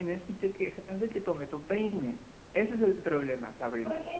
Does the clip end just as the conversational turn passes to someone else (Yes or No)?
Yes